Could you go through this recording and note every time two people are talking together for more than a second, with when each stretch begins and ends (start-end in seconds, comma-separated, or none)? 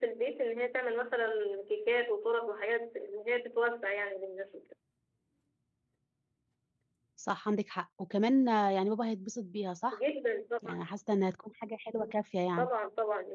none